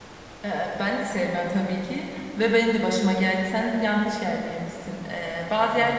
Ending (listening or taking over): listening